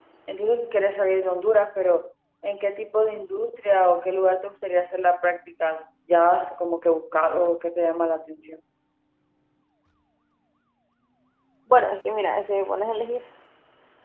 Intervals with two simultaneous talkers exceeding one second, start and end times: none

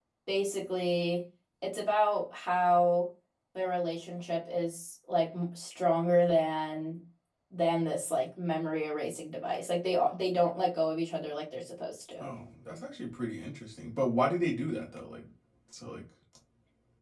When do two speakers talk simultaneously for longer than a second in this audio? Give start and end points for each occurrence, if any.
none

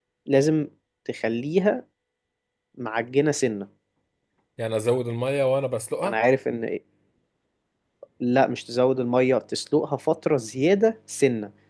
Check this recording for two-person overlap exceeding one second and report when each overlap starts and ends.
none

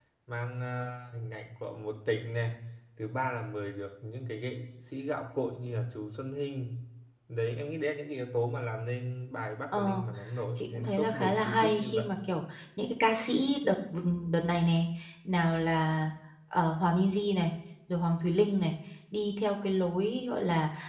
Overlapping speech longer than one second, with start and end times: 10.6-12.1

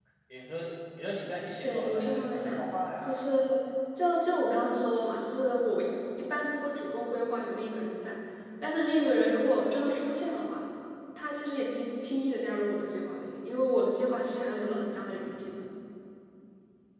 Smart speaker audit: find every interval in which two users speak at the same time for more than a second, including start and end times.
1.6-3.2

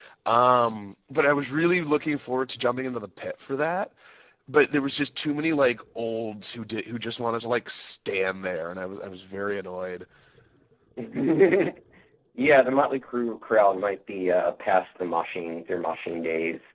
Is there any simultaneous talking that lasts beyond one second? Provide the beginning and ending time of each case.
none

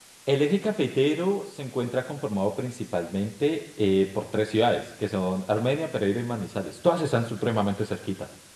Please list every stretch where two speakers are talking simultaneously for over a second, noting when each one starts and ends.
none

